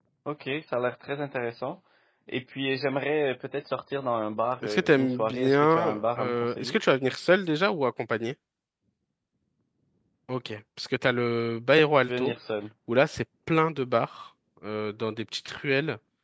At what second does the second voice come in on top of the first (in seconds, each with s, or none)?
4.6 s